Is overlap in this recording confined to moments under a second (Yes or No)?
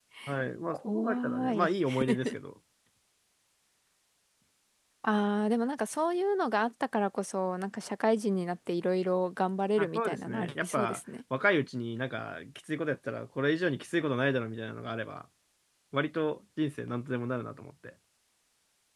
No